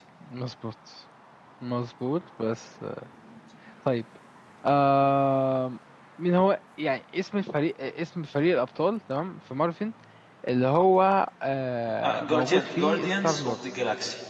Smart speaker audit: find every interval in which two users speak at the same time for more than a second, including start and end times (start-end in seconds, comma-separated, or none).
12.3-13.6